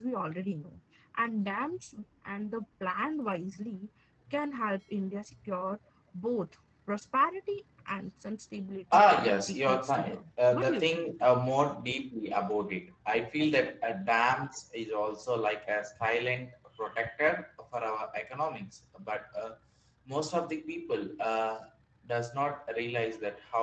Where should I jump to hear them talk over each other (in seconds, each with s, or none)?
8.9 s